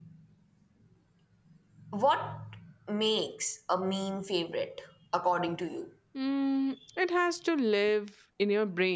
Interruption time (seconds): none

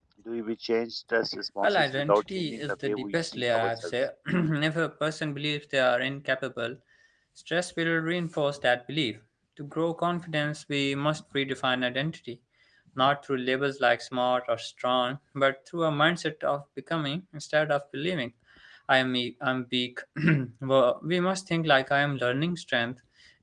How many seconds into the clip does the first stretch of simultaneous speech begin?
1.6 s

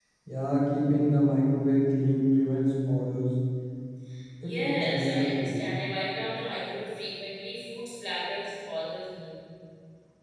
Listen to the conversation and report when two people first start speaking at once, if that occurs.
4.4 s

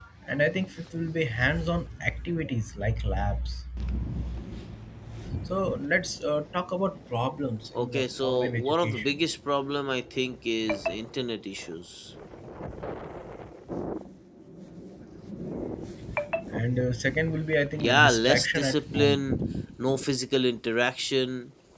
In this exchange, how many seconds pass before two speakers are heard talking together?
7.8 s

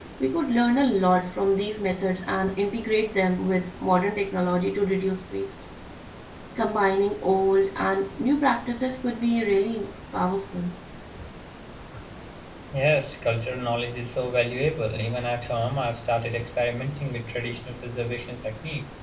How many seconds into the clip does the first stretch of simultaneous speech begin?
none

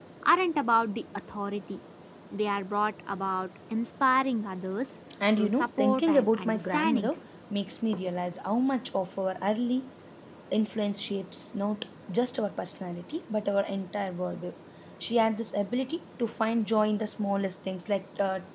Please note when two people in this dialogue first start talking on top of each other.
5.4 s

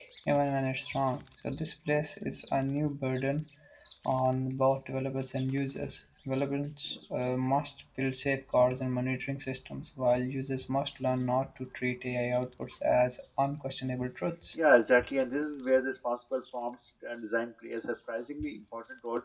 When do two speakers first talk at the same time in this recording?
none

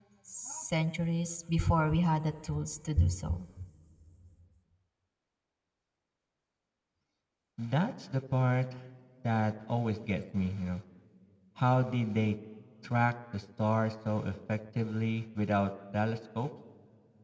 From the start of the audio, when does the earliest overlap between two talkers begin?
none

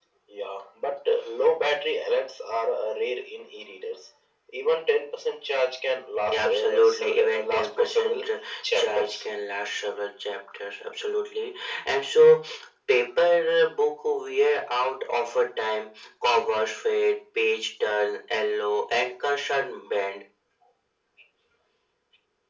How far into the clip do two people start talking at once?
6.2 s

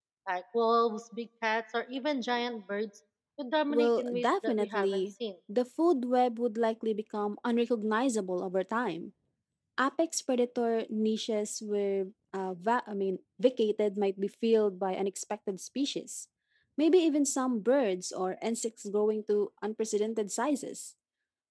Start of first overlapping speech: 3.7 s

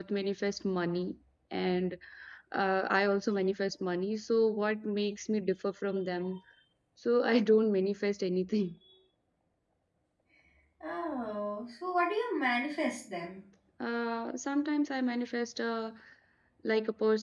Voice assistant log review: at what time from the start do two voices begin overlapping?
none

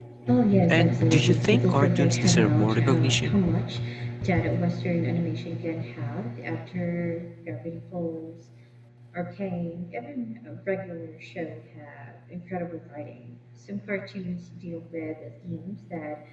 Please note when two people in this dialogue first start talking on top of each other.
0.7 s

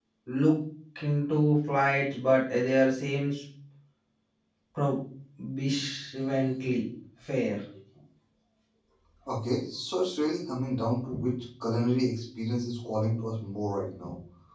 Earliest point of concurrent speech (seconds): none

